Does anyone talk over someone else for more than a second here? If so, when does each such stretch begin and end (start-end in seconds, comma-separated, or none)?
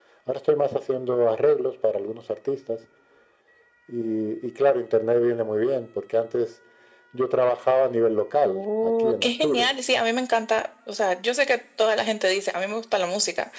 8.4-9.7